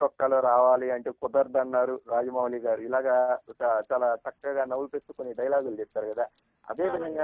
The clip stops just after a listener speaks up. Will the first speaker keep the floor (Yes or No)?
Yes